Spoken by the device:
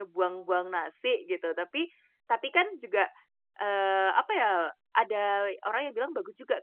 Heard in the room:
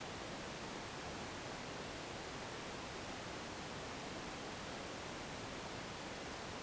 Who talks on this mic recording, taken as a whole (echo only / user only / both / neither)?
neither